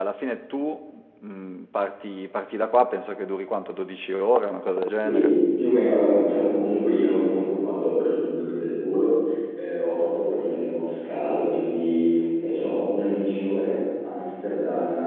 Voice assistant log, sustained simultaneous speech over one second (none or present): none